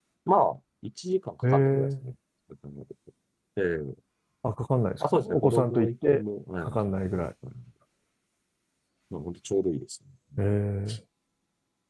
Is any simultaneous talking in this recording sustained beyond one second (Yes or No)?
Yes